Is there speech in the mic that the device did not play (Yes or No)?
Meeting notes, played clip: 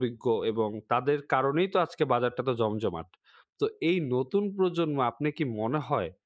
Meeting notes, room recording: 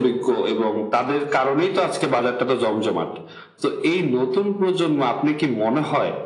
No